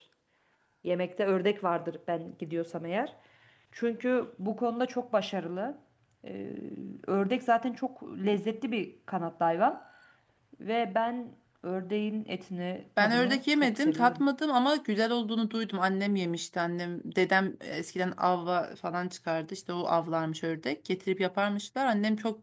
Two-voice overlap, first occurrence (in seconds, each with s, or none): 13.0 s